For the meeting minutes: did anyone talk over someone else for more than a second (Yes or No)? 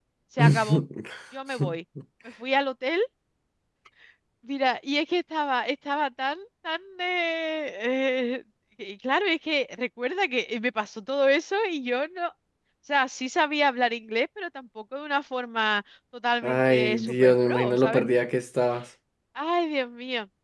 Yes